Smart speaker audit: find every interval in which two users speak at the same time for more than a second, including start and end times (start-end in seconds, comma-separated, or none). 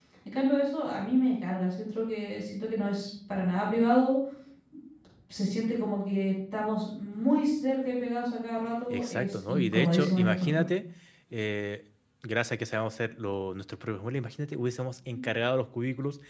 8.9-10.7